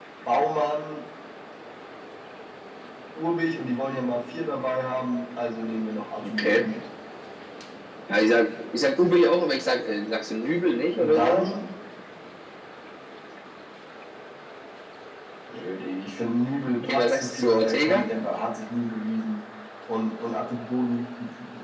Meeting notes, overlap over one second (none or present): present